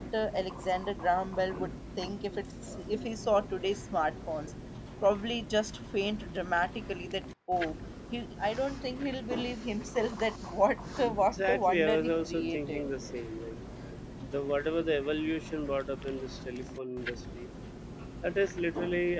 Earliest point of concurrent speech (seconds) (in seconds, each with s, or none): 11.2 s